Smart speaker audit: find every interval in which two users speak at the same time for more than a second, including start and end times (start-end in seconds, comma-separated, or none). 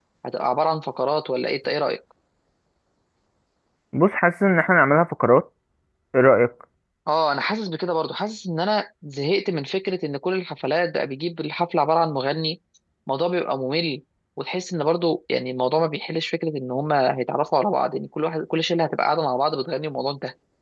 none